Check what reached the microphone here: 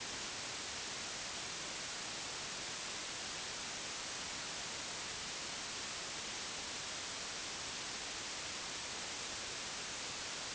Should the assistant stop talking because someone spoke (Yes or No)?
No